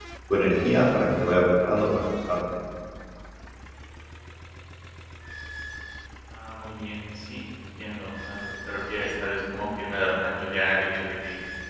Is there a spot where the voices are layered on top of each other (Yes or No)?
No